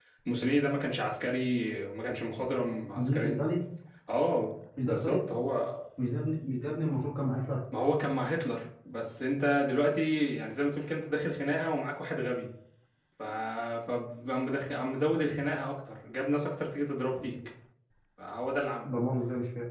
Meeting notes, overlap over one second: none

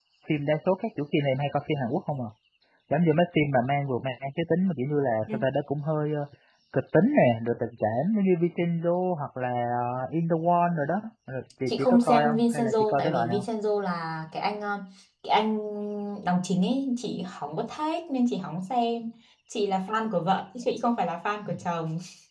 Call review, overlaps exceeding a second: present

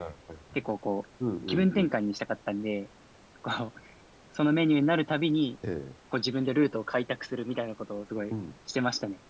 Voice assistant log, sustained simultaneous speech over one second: none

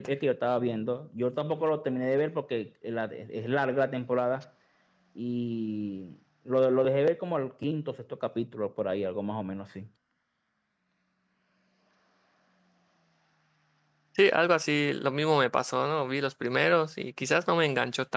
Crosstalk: none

